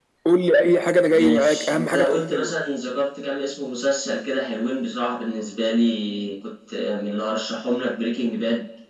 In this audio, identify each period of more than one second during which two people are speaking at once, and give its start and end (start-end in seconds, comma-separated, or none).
1.1-2.6